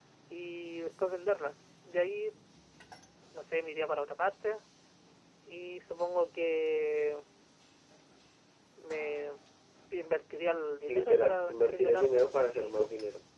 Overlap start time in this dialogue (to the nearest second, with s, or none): 11 s